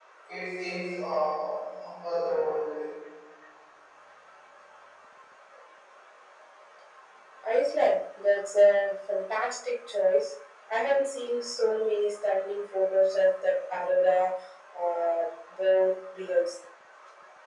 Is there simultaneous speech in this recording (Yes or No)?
No